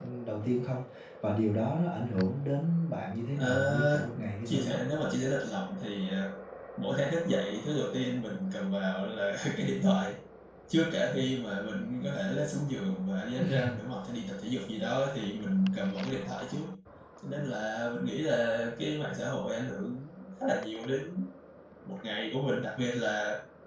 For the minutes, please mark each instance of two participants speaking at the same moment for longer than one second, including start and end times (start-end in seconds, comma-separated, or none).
3.4-4.8